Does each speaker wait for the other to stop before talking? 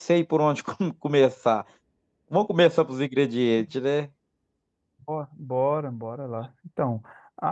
Yes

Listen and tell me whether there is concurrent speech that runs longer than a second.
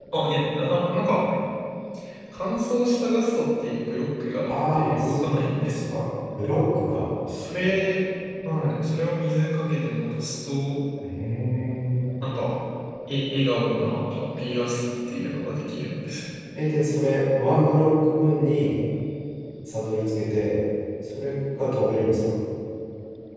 Yes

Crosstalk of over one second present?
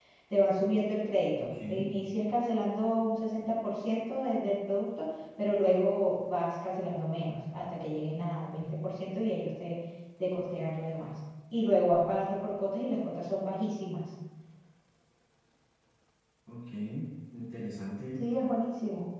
No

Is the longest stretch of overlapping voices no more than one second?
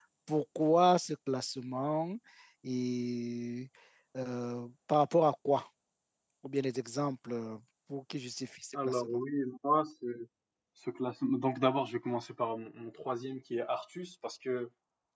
Yes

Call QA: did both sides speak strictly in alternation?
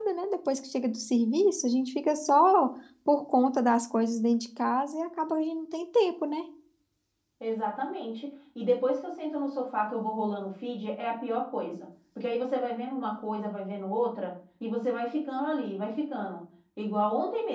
Yes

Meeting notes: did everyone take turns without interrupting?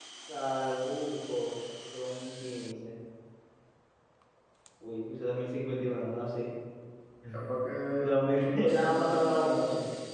No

